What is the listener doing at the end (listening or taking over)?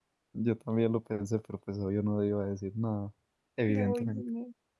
taking over